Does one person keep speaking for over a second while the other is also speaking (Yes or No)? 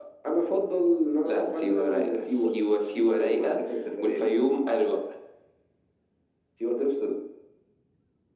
Yes